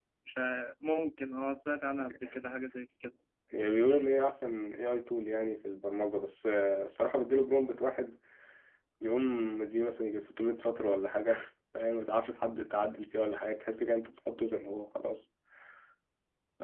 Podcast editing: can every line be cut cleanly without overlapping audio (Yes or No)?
Yes